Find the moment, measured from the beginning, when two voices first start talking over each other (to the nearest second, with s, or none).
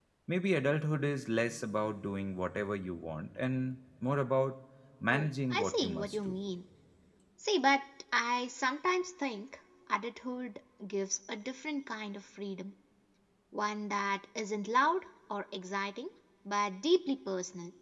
5 s